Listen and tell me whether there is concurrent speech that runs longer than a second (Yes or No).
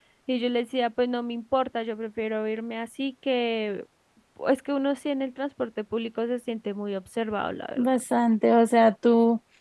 No